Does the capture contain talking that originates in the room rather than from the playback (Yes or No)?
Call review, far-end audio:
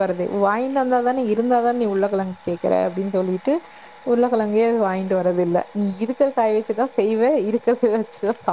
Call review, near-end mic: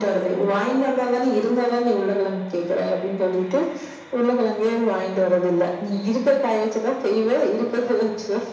No